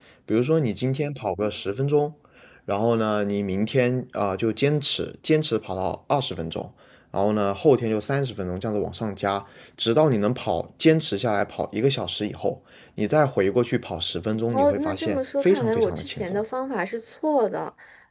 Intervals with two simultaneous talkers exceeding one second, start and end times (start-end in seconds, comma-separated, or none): 14.5-16.4